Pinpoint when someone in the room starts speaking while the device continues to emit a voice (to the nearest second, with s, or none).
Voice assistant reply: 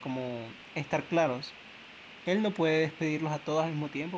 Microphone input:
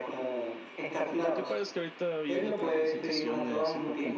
1 s